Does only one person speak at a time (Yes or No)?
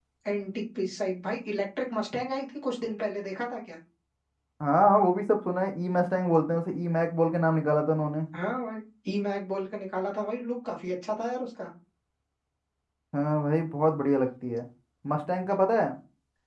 Yes